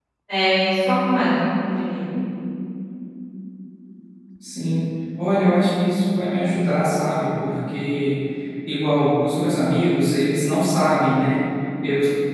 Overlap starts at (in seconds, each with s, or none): none